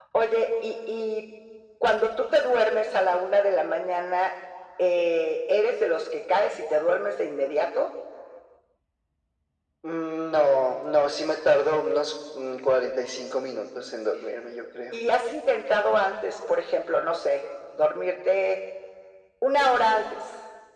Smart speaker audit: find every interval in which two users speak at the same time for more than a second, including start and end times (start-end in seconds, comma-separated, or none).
none